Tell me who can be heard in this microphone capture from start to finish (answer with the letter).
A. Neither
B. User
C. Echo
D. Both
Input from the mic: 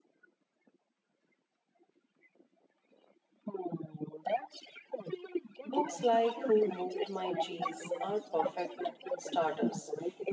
D